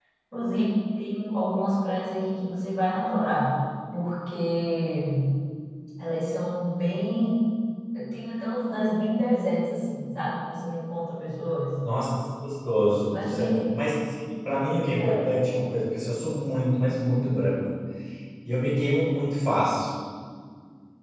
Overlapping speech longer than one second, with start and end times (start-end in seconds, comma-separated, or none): none